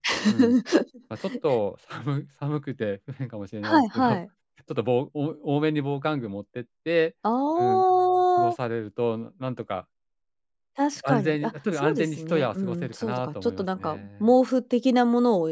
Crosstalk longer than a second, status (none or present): present